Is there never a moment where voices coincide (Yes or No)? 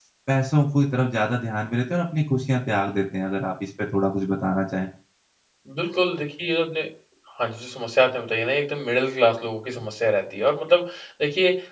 Yes